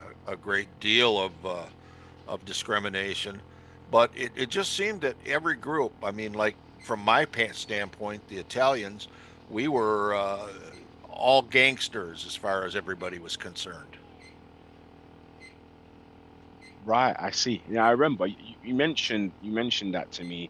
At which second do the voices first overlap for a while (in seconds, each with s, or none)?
none